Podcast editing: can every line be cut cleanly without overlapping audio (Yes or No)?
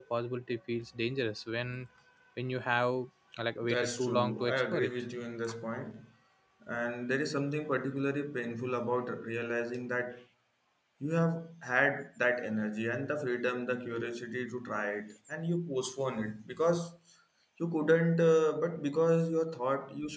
No